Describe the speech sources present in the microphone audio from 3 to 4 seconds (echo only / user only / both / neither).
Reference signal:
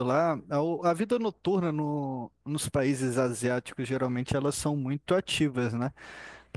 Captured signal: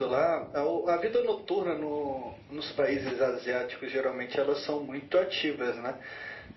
echo only